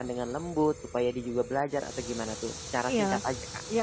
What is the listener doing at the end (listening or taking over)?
taking over